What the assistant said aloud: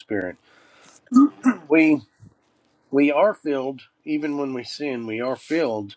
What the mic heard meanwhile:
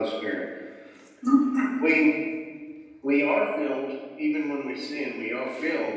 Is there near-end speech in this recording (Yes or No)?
No